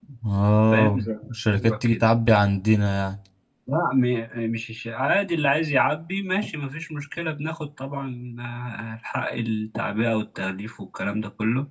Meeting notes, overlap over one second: present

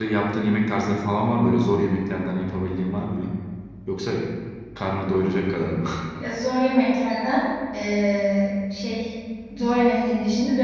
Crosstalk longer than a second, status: none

